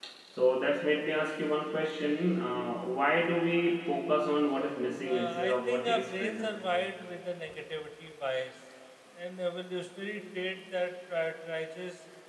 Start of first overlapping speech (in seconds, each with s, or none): 5.0 s